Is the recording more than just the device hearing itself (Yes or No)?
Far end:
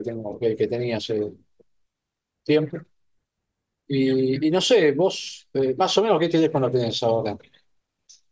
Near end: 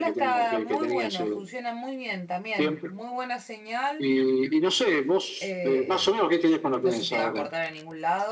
Yes